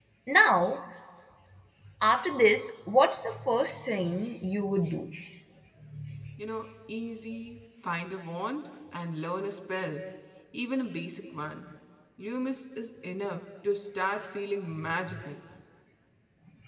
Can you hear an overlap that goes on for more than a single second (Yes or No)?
No